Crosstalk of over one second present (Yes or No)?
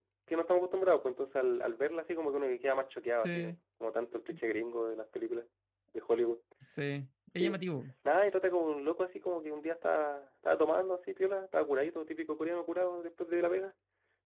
No